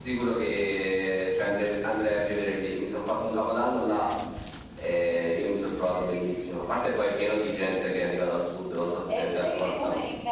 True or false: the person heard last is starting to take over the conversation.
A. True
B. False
A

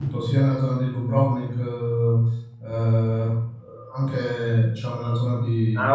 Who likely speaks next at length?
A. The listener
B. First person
A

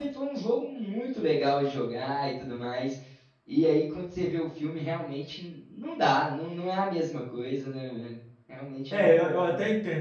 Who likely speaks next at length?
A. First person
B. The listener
B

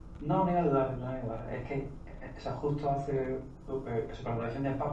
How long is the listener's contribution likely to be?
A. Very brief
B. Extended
A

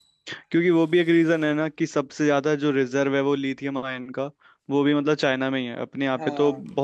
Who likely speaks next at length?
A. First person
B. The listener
A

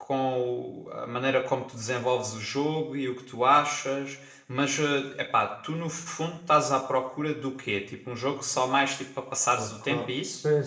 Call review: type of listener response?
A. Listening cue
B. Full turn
B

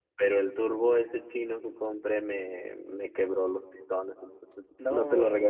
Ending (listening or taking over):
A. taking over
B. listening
B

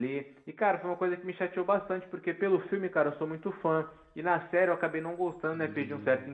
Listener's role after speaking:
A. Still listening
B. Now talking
A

